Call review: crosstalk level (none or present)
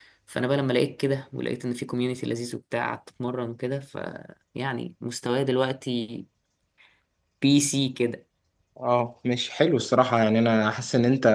none